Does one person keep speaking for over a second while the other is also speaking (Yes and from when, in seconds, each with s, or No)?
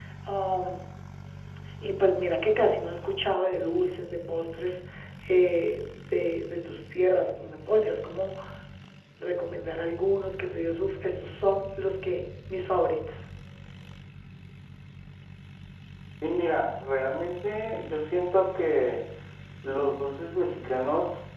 No